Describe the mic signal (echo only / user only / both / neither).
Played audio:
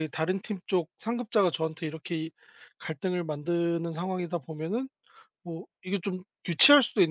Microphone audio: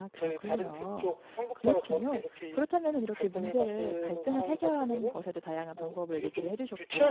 both